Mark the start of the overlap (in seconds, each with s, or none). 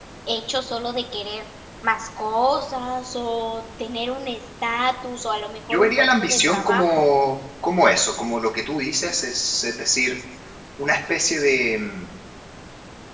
5.7 s